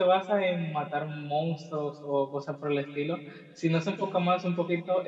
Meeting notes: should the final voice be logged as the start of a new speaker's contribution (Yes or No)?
No